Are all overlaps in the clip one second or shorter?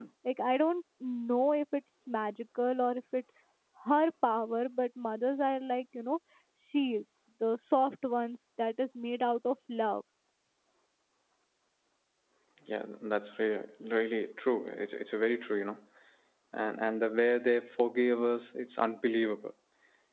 Yes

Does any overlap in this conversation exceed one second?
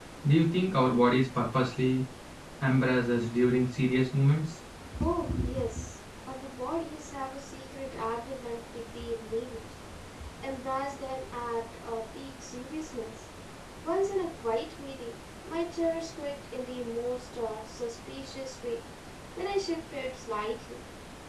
No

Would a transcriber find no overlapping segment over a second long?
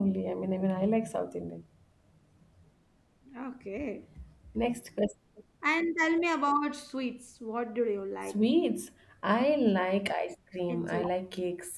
Yes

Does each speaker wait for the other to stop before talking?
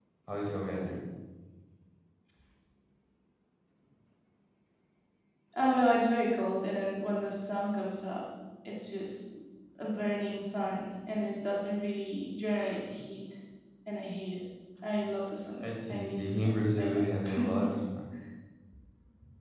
No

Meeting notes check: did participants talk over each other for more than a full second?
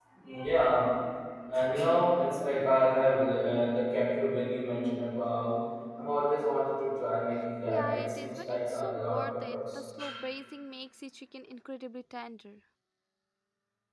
Yes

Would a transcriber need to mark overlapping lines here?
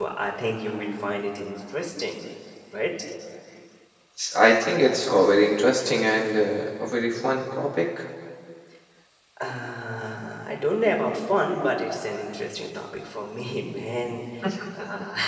No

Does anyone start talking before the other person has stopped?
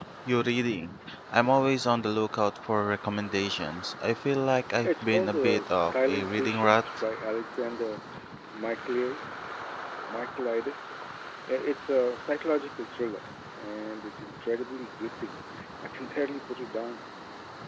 Yes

